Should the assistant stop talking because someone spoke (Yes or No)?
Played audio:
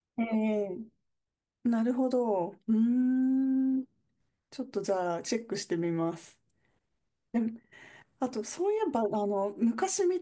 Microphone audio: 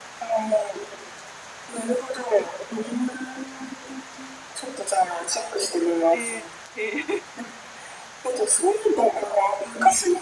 Yes